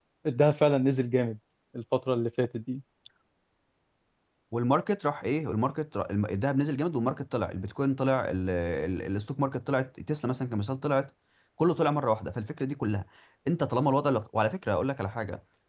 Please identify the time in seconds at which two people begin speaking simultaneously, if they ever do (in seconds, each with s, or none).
none